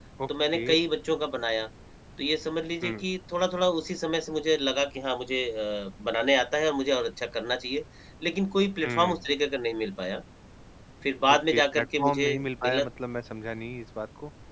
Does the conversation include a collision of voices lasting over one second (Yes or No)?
Yes